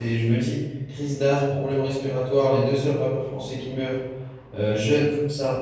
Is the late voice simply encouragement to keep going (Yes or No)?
Yes